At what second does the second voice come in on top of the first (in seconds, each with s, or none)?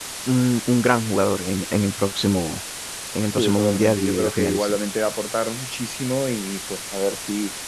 3.3 s